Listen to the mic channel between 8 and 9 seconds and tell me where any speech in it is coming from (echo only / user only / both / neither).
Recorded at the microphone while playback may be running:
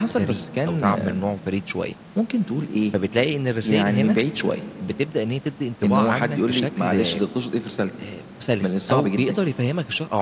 both